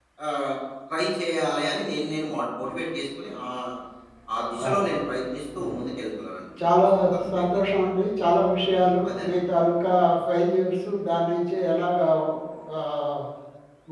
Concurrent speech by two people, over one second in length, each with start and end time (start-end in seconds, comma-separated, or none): none